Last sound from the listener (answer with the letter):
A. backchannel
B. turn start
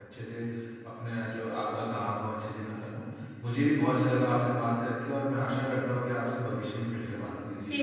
B